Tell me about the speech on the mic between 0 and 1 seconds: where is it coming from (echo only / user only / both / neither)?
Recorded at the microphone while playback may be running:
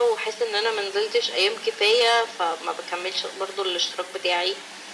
echo only